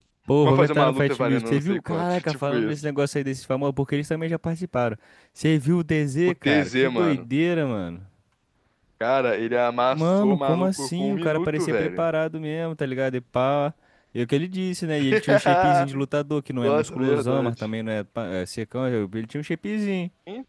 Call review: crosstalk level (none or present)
present